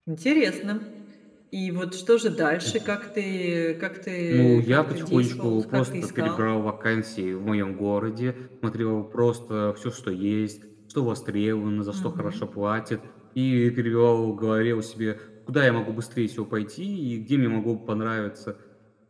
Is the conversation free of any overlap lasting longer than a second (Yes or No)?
No